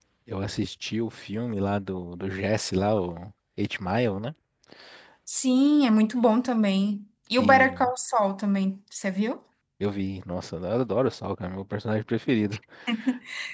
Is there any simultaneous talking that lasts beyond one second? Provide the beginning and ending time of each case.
none

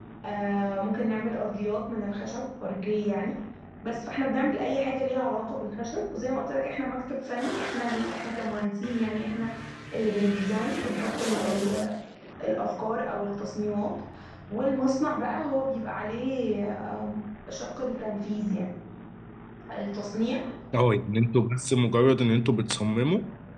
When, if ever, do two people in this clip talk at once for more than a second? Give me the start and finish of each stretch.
none

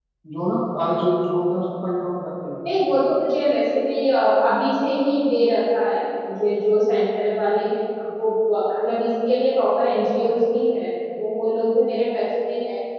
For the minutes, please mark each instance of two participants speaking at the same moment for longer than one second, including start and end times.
none

